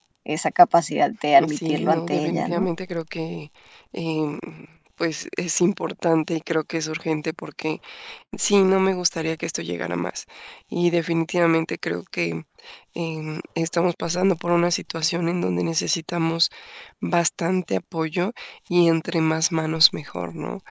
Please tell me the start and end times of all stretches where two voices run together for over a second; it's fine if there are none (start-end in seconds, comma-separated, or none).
1.3-2.7